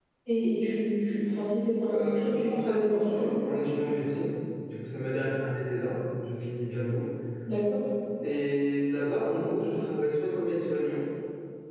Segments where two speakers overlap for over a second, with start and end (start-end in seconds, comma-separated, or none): 1.9-3.3